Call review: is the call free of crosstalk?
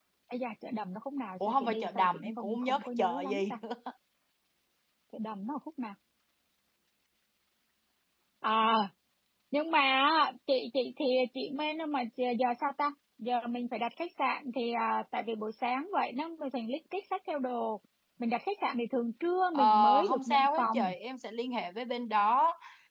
No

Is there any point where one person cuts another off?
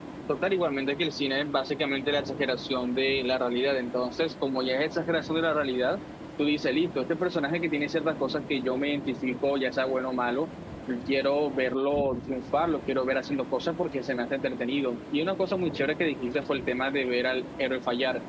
No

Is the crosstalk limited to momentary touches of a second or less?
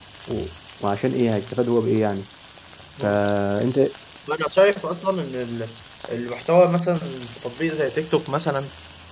Yes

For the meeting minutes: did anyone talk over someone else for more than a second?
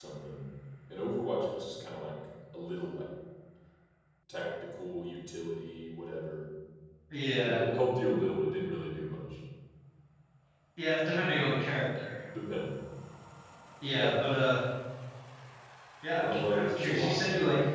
Yes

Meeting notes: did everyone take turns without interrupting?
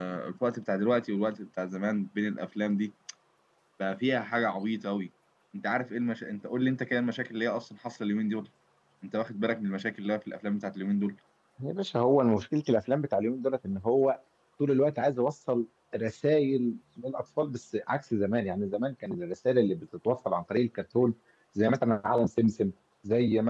Yes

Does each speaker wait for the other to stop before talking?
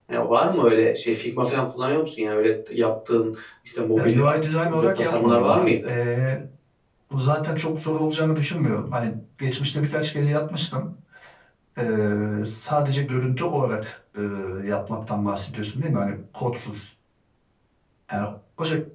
No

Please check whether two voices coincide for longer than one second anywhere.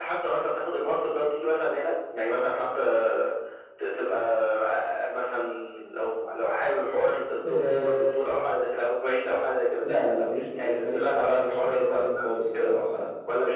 Yes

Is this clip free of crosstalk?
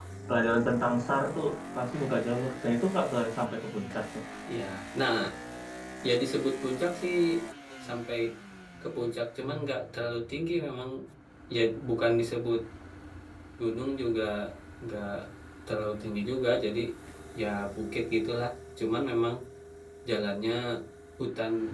Yes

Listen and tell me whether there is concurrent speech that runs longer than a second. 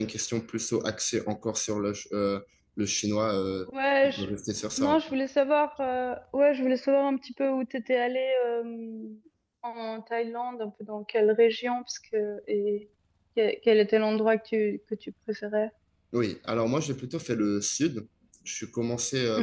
No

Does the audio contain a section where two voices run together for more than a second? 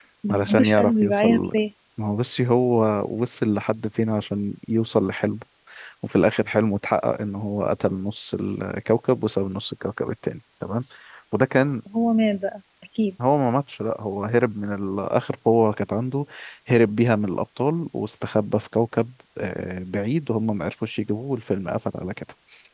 Yes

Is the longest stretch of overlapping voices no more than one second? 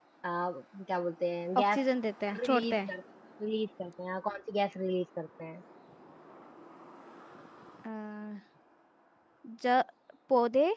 Yes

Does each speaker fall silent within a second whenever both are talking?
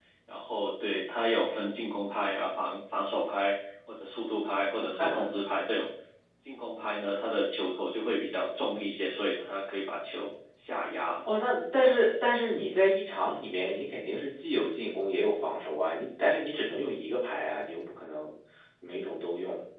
Yes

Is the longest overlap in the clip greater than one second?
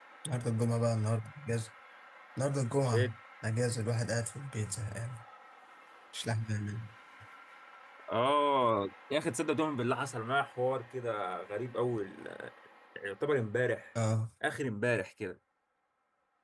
No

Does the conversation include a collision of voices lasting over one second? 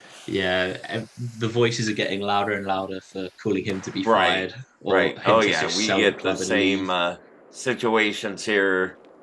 Yes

